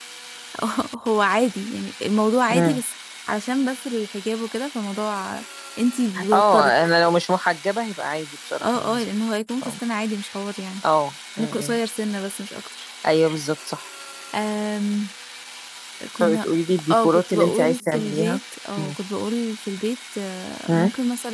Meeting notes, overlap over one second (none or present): present